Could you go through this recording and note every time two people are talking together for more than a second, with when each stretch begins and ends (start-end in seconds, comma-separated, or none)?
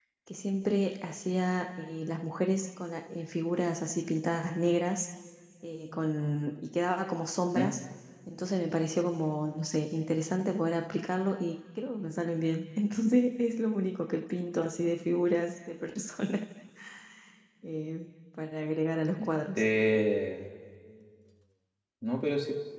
none